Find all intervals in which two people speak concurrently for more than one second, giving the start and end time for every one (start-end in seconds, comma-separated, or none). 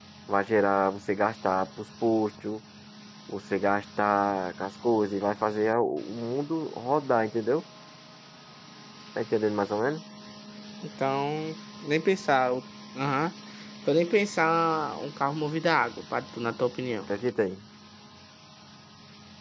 none